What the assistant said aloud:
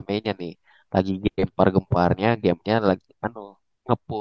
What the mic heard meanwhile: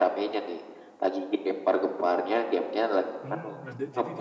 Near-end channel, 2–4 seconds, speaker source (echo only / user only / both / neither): both